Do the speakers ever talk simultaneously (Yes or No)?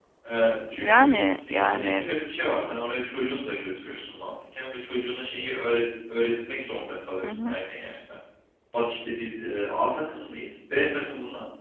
Yes